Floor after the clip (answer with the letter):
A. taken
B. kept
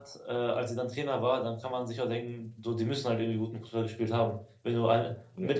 B